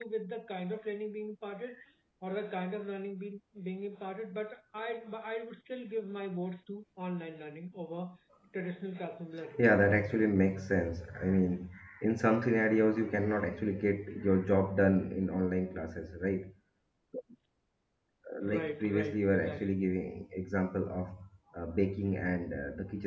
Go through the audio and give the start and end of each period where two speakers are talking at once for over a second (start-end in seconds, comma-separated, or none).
18.4-19.8